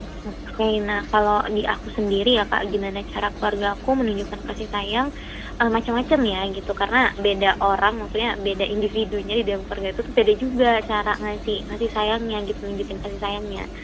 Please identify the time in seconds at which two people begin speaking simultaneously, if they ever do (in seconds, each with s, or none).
none